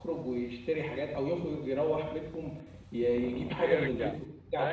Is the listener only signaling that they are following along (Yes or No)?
No